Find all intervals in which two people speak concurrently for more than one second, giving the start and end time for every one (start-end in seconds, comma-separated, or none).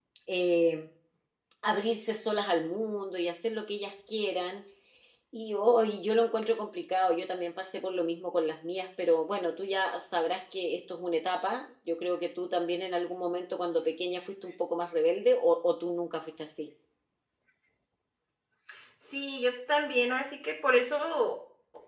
none